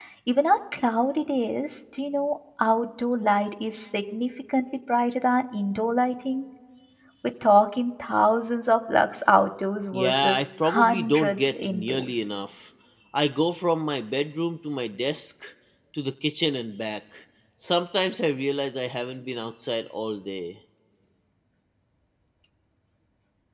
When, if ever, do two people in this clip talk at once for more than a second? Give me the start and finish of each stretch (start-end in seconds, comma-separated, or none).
9.9-12.1